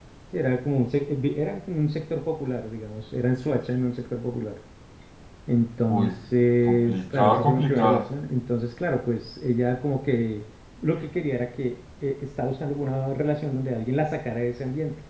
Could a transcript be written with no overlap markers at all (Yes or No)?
No